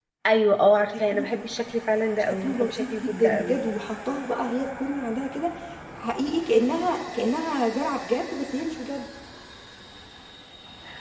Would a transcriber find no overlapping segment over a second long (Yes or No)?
No